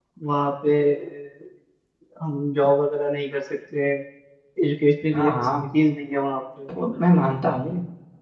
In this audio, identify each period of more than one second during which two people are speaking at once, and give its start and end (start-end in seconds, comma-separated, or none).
none